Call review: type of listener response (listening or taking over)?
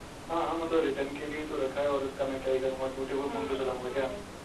taking over